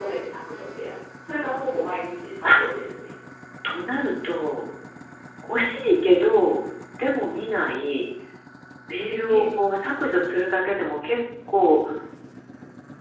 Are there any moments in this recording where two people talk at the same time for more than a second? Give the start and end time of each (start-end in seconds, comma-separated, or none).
none